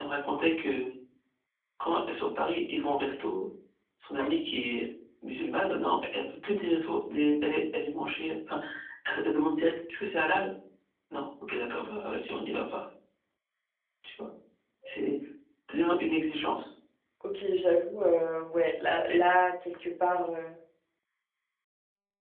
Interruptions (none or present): none